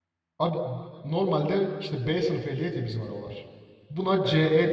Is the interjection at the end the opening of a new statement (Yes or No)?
No